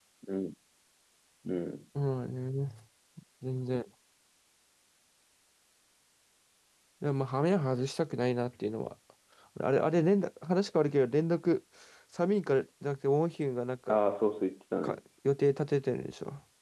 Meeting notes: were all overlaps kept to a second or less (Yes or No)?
Yes